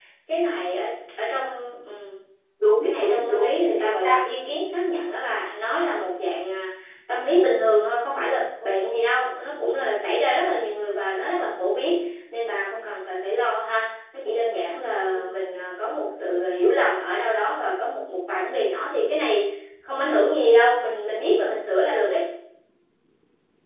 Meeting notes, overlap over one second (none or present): present